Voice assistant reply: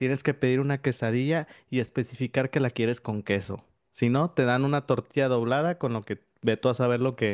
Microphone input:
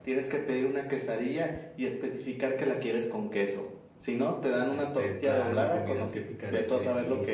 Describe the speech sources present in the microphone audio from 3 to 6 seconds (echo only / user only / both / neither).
both